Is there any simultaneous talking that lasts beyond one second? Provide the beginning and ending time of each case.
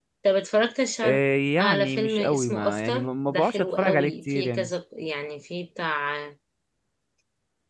1.6-4.7

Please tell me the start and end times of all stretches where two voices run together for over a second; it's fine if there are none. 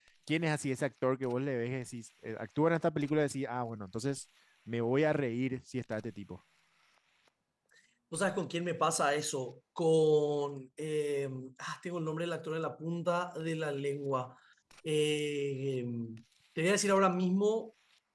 none

